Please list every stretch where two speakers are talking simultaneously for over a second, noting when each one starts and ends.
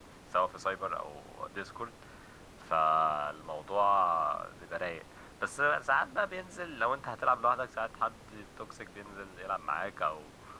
none

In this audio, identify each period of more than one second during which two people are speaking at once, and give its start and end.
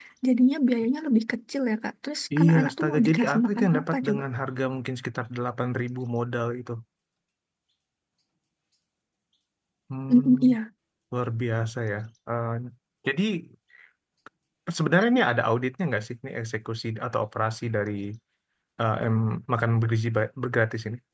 2.4-4.2

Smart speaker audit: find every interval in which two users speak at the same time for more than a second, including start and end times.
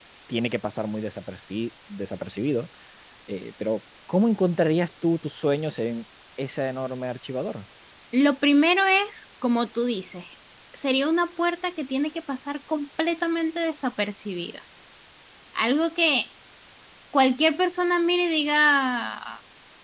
none

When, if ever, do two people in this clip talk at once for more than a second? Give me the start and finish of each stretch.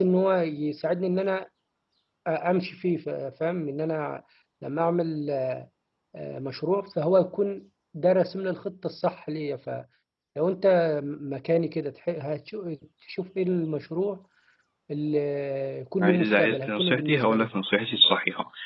16.0-17.5

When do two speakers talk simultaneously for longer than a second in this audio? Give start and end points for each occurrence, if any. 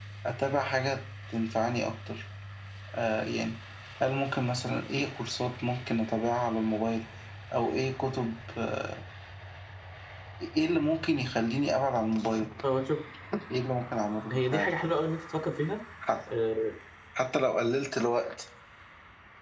none

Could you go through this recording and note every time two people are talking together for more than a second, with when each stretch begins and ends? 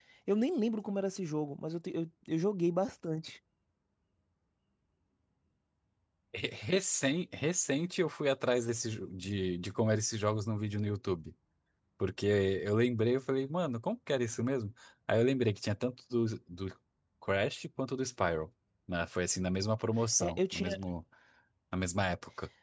none

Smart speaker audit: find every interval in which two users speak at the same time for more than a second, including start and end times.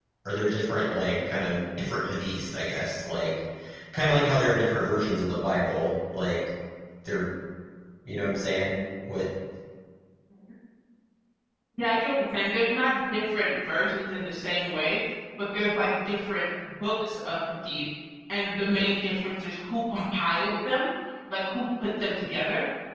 none

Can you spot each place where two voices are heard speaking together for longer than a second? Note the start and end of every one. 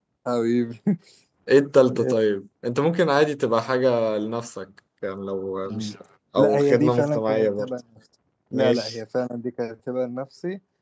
6.4-7.7

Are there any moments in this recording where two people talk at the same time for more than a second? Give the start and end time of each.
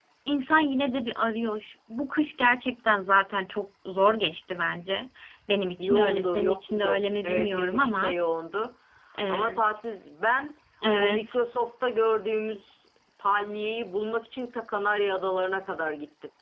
5.8-8.1

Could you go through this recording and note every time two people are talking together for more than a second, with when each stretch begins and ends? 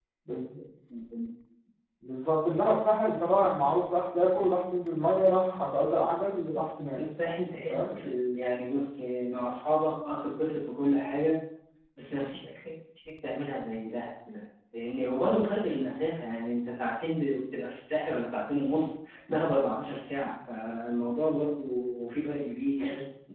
none

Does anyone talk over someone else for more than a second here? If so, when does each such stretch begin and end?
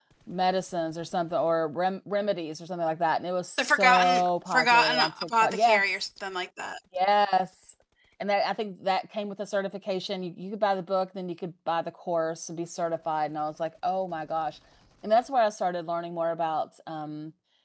3.6-5.9

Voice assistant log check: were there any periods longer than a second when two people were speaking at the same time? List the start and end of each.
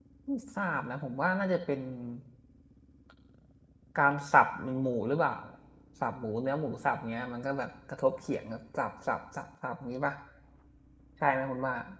none

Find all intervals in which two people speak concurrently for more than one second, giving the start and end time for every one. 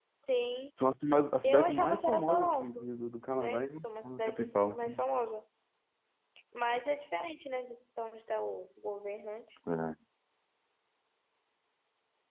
1.4-2.8, 3.4-4.9

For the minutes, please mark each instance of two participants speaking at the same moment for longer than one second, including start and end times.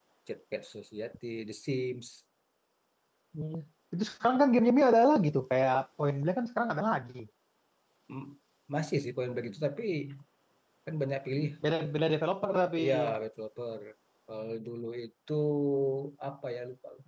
none

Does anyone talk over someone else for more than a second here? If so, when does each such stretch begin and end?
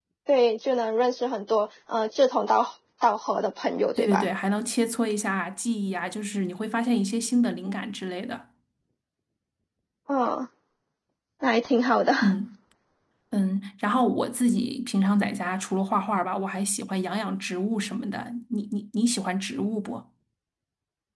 none

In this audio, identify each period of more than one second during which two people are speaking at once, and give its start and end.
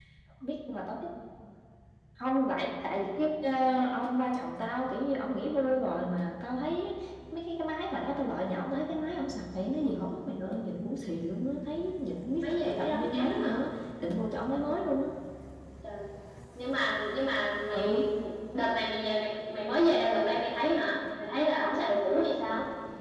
12.4-13.6

